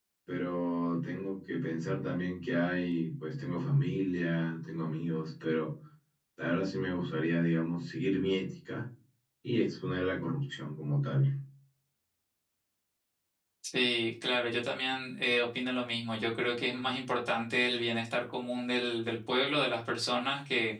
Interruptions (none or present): none